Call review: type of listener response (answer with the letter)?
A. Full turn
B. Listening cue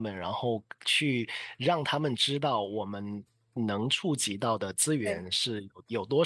B